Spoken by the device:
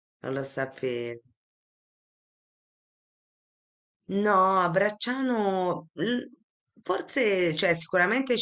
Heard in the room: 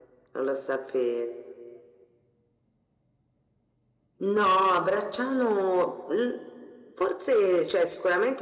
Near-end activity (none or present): none